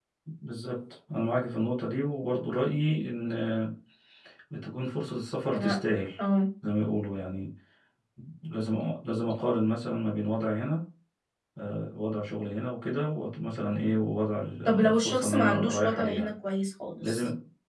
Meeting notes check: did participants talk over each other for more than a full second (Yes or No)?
Yes